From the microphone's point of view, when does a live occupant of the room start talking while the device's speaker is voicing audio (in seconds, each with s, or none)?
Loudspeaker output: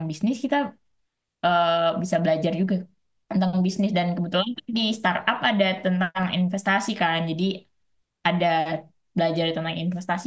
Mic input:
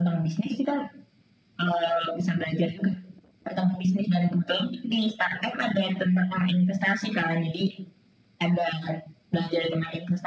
none